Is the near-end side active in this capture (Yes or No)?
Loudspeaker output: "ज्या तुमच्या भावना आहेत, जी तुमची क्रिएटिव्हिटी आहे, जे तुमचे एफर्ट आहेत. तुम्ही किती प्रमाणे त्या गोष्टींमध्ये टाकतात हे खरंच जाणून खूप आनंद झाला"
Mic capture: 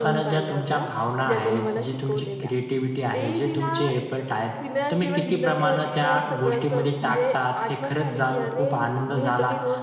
Yes